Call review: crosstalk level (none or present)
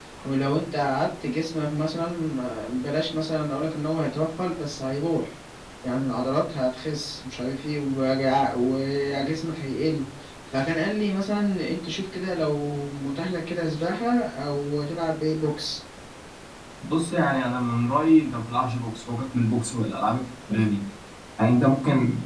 none